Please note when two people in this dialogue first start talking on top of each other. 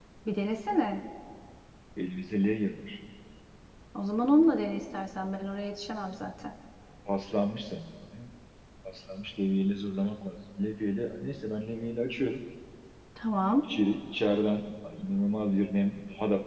none

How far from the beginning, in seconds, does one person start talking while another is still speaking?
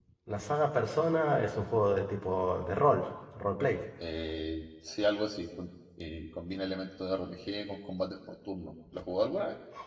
none

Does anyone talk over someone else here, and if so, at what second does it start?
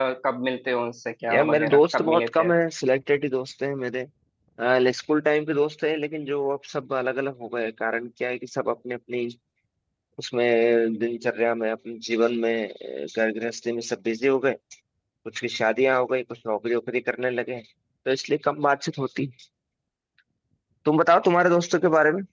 1.3 s

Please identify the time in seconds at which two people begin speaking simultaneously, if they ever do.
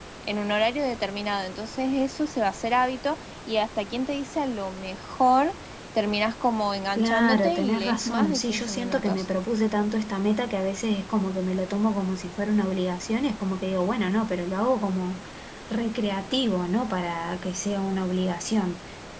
7.0 s

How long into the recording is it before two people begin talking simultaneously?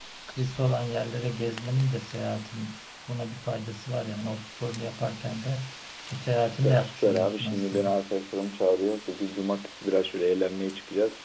6.5 s

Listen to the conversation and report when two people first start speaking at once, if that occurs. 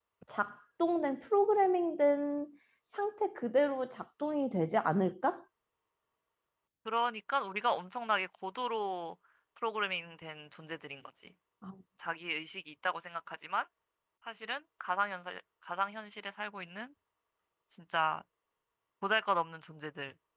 none

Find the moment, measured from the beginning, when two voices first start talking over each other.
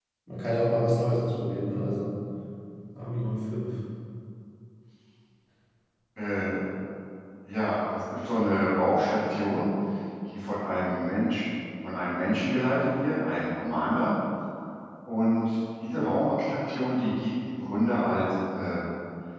none

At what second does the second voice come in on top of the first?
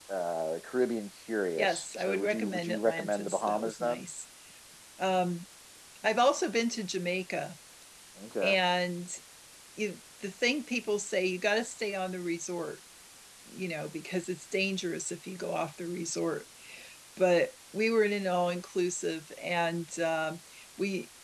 1.6 s

